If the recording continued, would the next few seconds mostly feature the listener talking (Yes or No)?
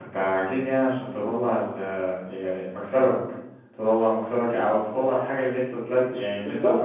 Yes